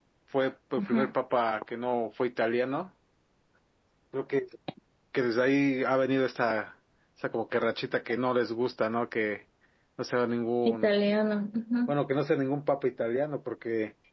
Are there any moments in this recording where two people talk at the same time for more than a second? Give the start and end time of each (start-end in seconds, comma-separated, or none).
none